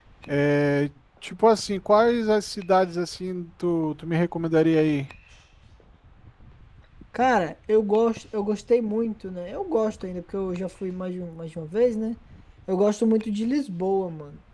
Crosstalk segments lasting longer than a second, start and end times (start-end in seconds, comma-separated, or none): none